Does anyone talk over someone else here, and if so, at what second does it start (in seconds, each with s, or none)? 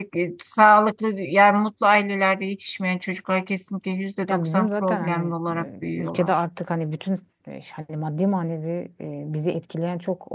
4.3 s